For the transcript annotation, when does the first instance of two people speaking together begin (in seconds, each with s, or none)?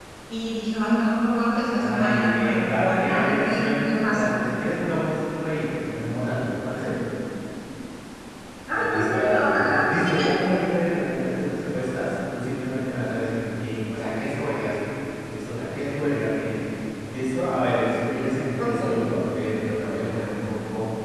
1.7 s